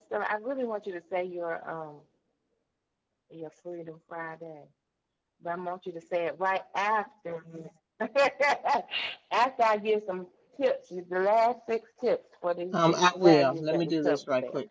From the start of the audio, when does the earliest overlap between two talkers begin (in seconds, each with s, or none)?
12.7 s